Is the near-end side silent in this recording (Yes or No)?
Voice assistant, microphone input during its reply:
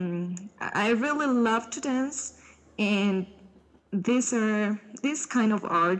Yes